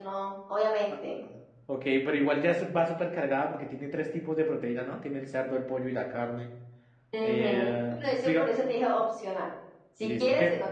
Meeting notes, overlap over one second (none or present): present